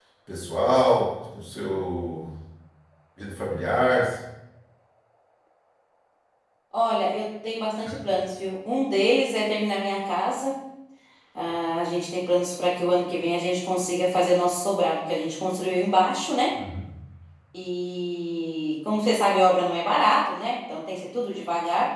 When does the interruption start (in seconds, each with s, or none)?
none